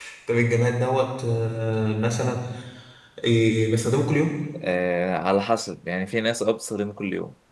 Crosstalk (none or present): none